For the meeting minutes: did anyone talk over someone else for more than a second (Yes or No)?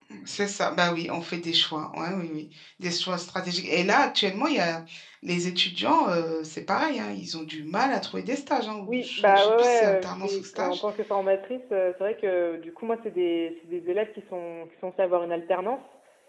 Yes